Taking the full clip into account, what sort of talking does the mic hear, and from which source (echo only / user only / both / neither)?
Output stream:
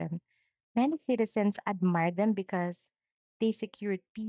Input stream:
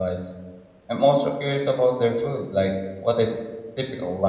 user only